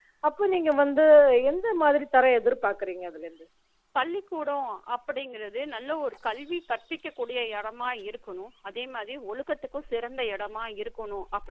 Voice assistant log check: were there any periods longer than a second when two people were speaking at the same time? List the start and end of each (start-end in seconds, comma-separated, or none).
none